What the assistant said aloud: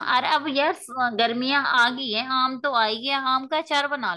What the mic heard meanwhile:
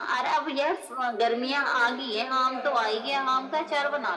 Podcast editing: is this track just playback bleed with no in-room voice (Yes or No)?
No